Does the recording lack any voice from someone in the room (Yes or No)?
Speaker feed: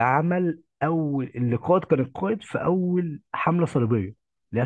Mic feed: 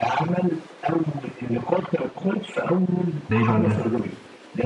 No